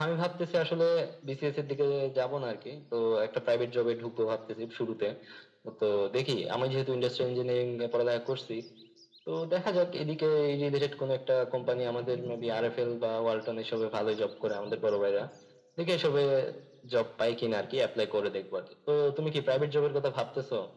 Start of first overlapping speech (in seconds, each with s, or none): none